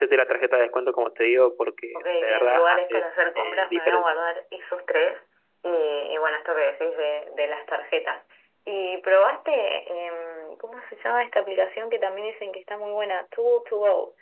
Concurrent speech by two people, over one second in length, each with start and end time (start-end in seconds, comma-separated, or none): 1.9-4.1